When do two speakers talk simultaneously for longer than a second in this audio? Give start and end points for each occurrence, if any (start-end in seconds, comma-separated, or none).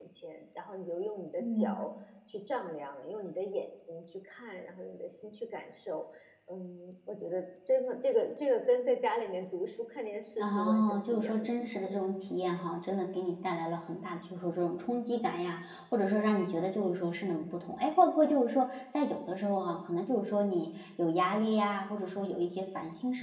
10.4-11.9